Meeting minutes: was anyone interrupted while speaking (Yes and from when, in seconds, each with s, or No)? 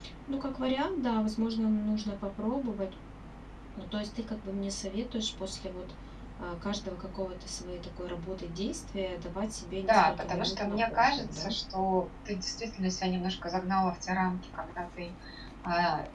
Yes, from 9.9 s